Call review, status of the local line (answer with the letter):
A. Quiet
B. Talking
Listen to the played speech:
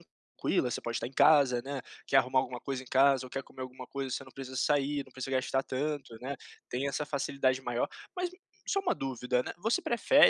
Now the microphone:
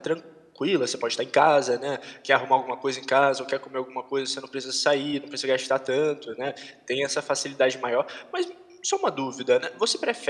A